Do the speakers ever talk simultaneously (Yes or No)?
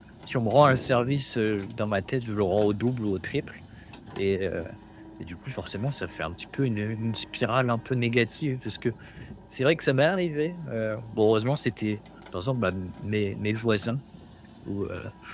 No